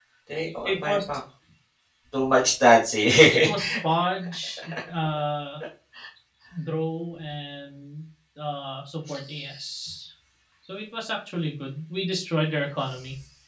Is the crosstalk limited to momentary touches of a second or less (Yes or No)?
Yes